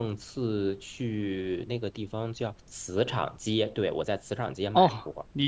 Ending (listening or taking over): taking over